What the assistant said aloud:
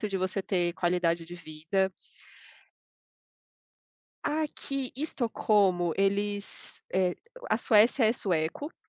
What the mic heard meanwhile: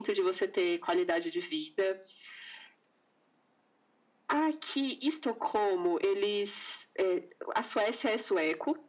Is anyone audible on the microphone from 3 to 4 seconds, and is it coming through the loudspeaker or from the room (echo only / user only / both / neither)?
neither